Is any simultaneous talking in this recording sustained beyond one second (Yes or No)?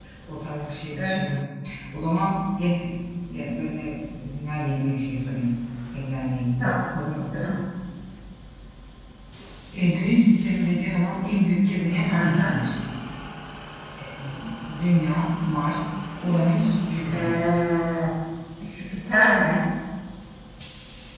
No